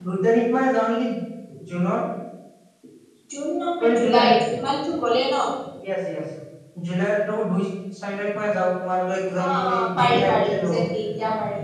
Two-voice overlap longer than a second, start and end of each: 9.4-10.8

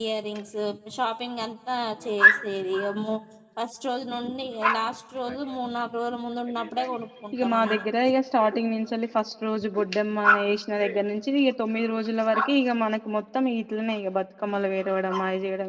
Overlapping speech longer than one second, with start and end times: none

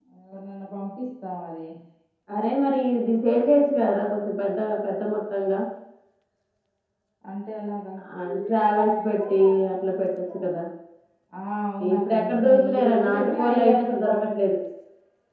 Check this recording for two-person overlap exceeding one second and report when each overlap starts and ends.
11.9-14.4

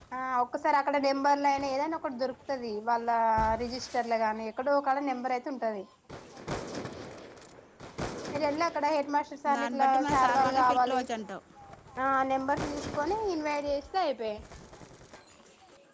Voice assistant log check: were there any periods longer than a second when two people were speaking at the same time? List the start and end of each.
9.6-11.0

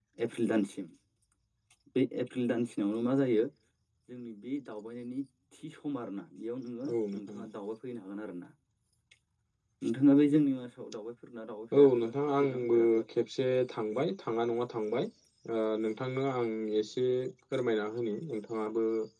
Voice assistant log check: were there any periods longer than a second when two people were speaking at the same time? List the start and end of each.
11.8-13.0

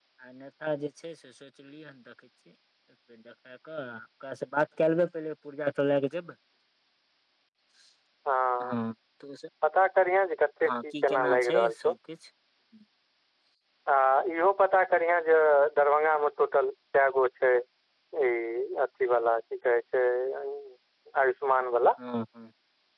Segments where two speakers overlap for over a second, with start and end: 10.7-11.9

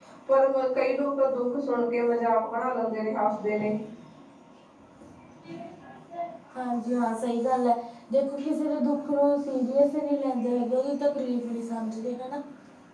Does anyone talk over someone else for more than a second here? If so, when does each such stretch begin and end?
none

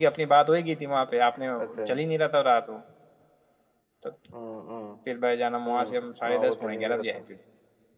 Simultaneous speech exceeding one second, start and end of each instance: 5.7-7.2

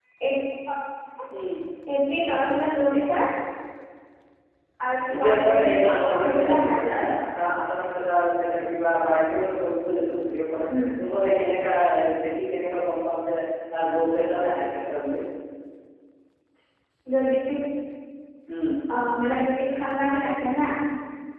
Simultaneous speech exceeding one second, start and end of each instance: 5.1-7.1

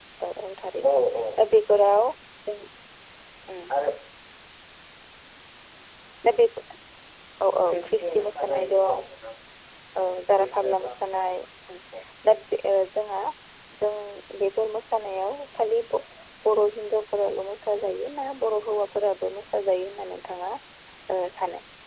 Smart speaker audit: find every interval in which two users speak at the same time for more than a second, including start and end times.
7.7-9.0

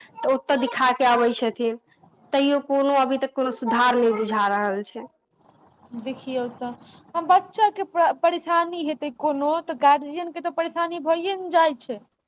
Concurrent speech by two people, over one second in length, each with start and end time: none

